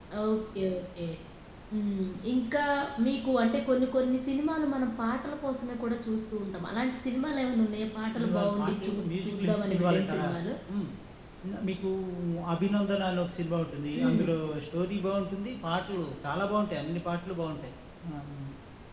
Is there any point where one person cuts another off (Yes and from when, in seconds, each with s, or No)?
Yes, from 8.2 s